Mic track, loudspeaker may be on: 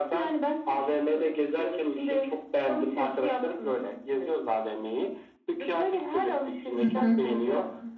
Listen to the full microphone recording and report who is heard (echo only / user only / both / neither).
both